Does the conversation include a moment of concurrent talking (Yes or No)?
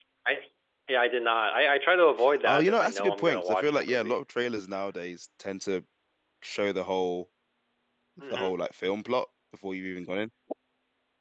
Yes